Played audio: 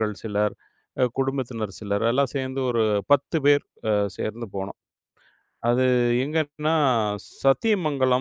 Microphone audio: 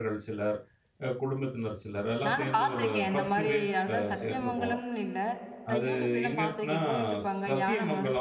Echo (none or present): present